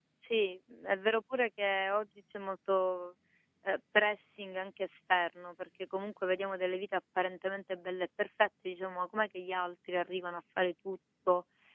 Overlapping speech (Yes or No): No